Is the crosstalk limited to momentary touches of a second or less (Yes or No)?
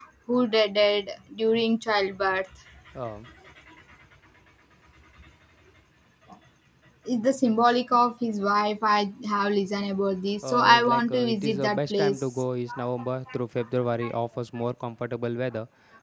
No